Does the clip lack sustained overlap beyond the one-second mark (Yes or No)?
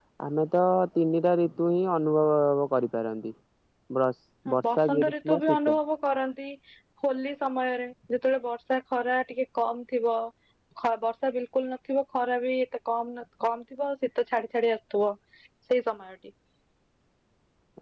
No